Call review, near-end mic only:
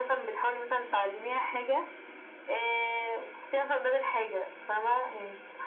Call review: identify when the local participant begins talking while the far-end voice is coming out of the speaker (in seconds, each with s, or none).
none